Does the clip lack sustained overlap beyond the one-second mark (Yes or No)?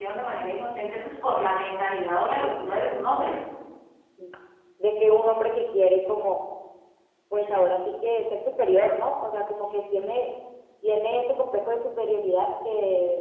Yes